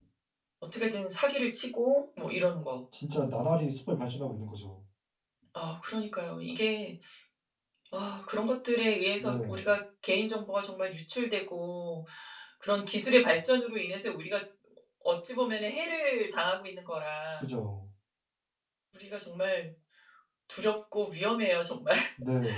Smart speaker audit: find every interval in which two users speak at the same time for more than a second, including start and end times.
none

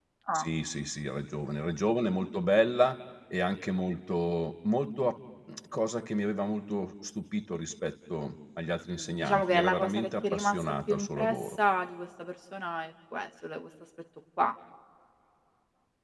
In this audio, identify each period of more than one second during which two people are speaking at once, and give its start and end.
8.9-11.6

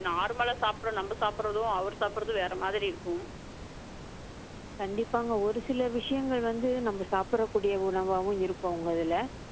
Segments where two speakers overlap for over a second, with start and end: none

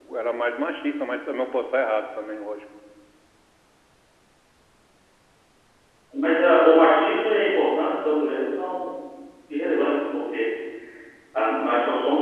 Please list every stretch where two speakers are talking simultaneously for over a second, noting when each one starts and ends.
none

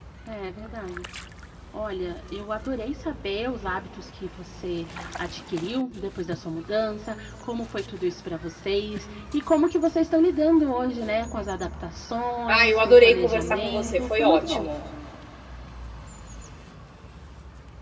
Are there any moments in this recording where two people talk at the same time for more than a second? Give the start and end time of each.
12.5-14.7

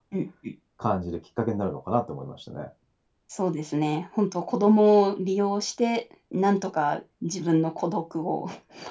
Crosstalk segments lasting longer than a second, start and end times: none

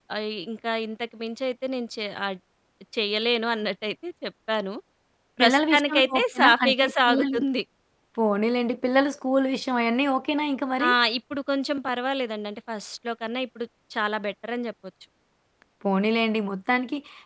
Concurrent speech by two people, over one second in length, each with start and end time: 5.4-7.4

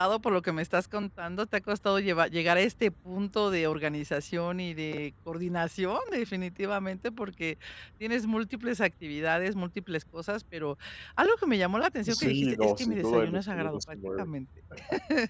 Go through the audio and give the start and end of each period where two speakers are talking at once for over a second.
12.1-14.3

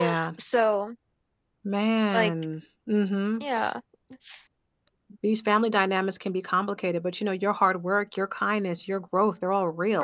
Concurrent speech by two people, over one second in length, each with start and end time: none

